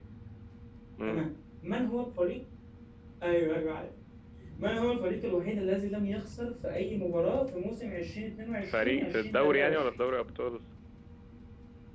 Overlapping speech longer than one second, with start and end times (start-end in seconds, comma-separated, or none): 8.7-10.0